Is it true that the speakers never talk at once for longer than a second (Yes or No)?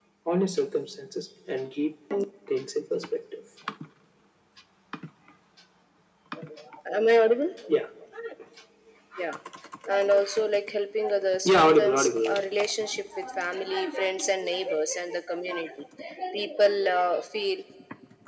No